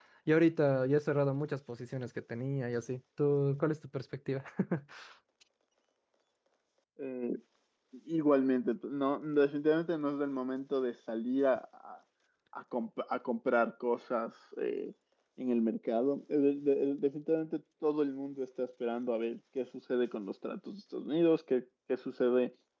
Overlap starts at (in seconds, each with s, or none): none